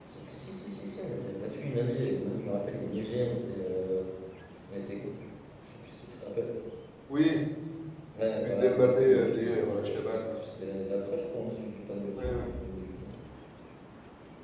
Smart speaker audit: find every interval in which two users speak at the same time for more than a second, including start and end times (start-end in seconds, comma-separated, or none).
8.4-10.4